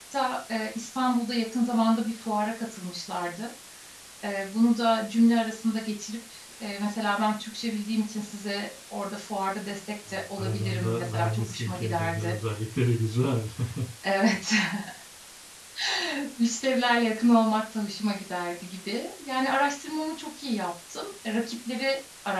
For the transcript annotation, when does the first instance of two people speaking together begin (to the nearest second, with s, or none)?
10 s